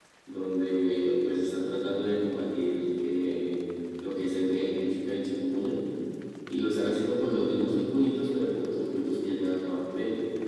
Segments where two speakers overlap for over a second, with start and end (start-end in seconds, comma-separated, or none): none